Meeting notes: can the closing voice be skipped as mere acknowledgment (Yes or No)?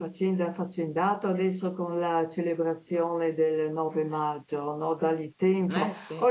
Yes